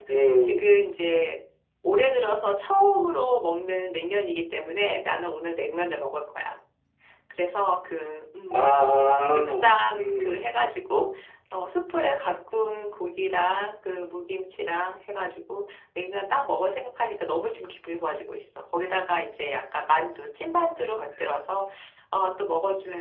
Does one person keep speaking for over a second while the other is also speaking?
No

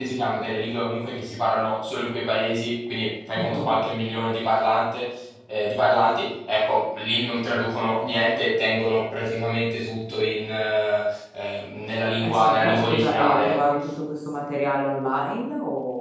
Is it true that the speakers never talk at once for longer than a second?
No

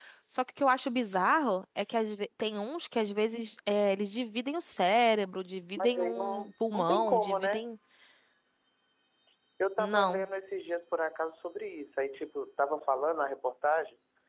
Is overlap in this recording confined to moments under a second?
No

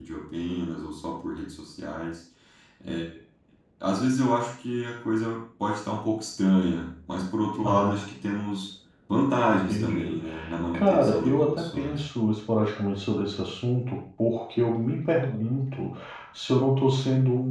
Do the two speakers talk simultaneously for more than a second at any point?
Yes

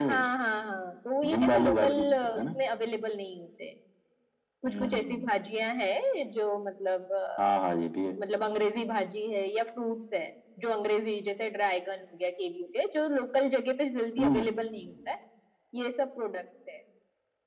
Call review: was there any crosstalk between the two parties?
Yes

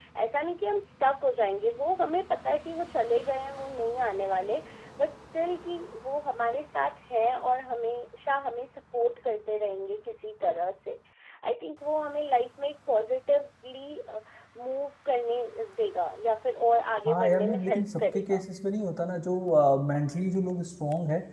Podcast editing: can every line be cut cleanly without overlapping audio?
No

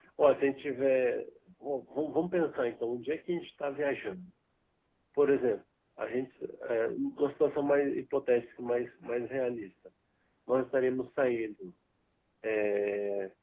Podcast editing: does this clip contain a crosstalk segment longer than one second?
No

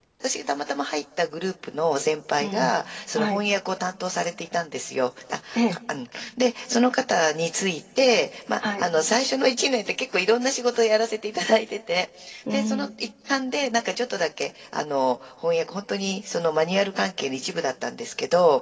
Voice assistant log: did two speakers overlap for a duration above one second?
No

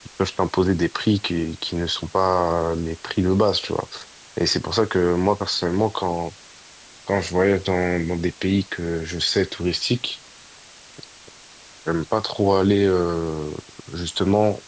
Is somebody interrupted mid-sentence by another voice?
No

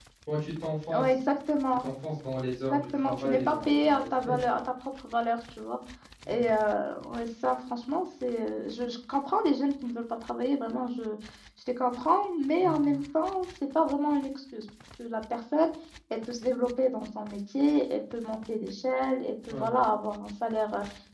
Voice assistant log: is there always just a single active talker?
No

